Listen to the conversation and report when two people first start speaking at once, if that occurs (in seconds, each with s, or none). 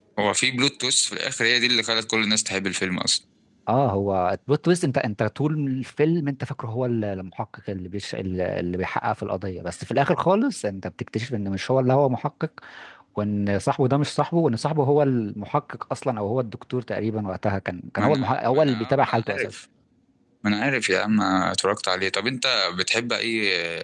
18.0 s